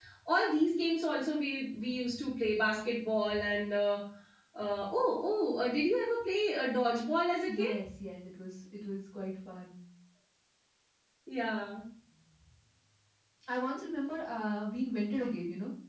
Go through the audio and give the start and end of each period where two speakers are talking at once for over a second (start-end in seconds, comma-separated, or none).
none